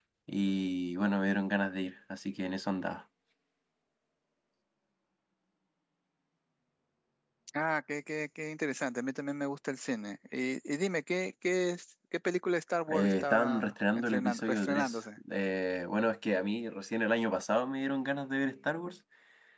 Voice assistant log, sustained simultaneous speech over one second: present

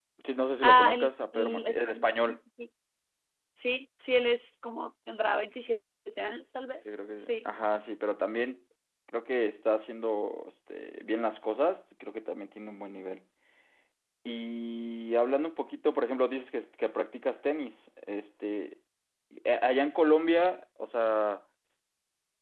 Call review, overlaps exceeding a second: present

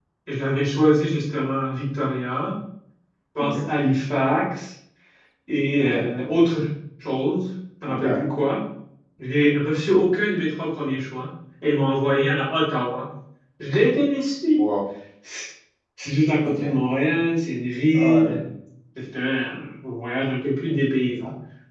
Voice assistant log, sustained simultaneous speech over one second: none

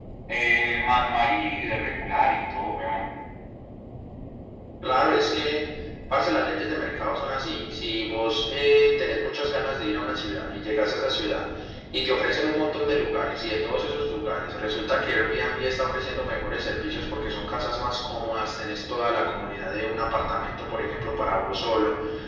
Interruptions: none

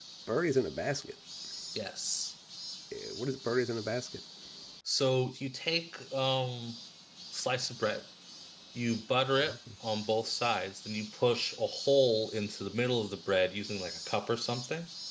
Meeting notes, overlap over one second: none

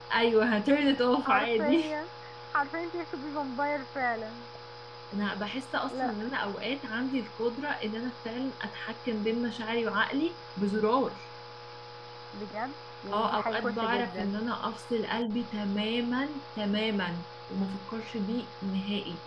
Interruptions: present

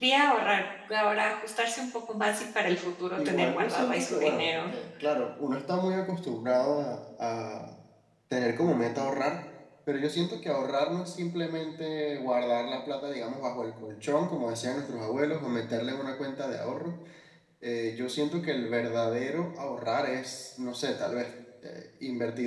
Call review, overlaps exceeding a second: present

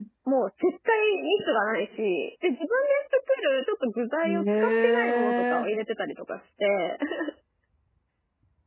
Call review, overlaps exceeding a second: present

